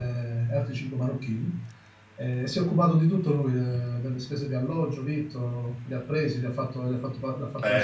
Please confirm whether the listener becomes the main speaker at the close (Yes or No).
Yes